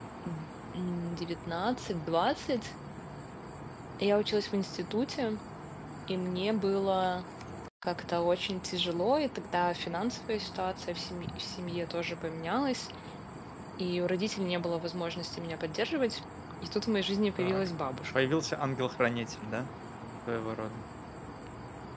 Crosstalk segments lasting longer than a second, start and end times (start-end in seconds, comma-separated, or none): none